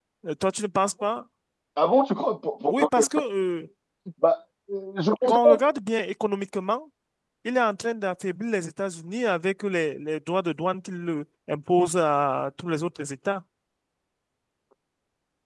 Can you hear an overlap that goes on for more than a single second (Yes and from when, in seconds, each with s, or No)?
No